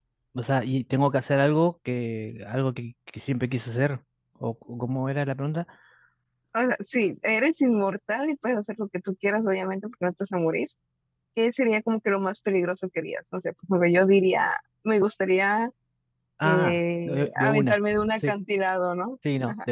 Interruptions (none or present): present